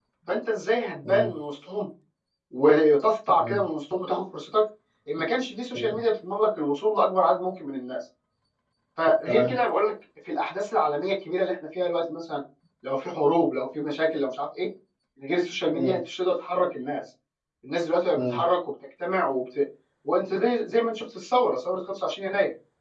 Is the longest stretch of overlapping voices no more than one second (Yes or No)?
Yes